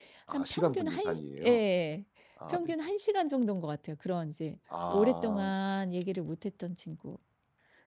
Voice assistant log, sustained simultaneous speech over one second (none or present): present